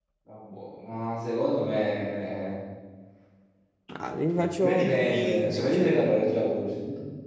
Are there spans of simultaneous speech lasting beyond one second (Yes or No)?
Yes